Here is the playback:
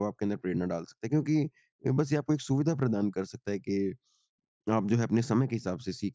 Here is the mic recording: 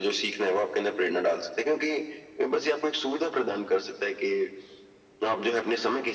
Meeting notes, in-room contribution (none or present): none